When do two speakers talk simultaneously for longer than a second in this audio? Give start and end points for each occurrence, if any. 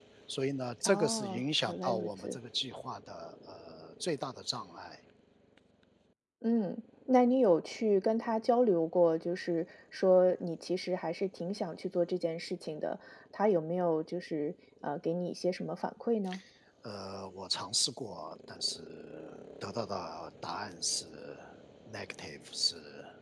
0.8-2.4

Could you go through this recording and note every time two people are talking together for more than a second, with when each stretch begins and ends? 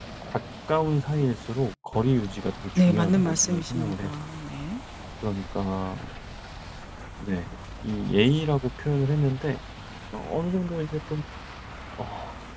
2.8-4.1

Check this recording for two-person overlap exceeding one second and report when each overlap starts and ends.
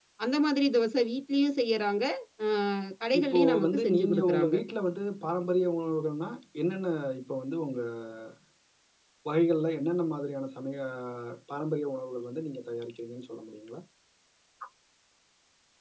3.2-4.5

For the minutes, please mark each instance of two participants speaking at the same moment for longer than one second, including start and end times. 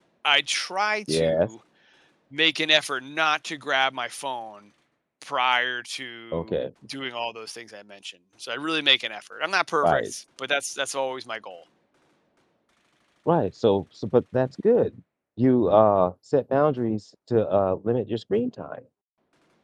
none

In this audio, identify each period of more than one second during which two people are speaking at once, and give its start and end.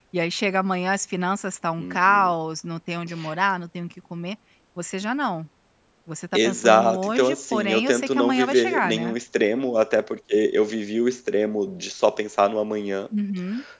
6.3-9.1

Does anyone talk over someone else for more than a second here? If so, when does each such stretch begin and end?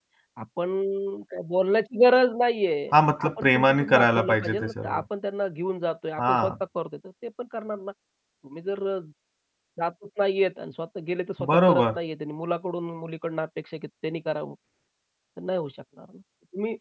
3.2-5.0

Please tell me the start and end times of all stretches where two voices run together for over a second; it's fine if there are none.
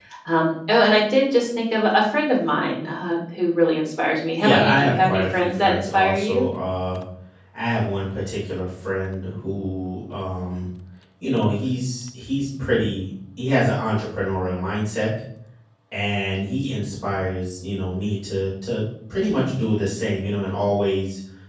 4.4-6.4

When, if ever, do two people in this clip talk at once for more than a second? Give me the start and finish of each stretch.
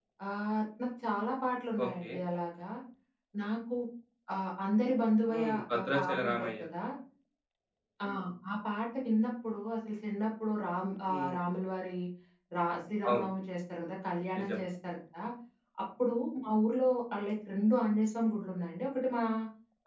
5.3-6.7

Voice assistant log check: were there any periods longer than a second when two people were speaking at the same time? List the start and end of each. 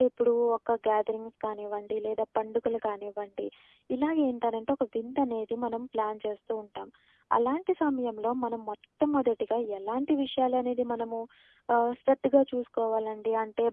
none

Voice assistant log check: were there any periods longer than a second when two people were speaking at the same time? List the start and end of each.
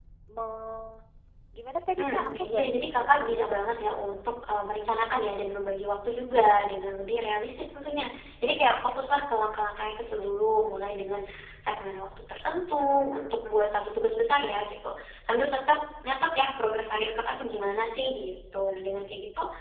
2.0-3.7

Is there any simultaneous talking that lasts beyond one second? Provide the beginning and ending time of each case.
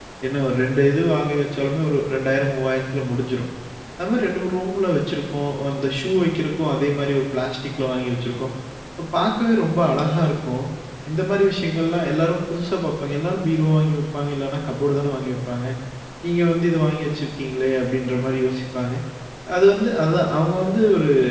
none

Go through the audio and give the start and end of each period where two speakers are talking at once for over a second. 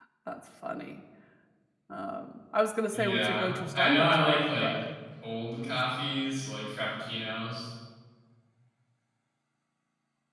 2.9-4.7

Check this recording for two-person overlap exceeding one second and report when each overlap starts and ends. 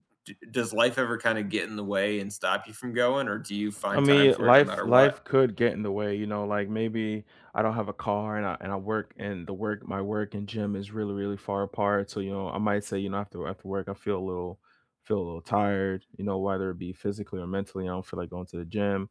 3.9-5.2

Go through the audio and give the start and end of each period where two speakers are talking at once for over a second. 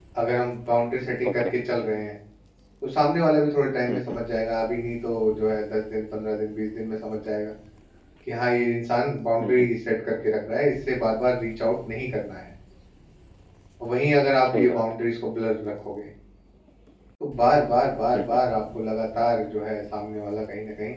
none

